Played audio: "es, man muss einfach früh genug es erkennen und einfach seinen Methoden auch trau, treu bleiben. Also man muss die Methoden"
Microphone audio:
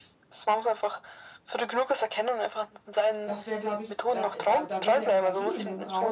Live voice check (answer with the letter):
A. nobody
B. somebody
B